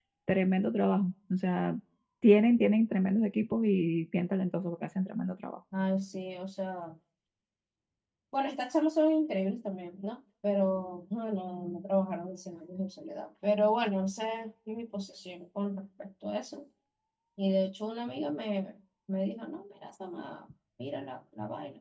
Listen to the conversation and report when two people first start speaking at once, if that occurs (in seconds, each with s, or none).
none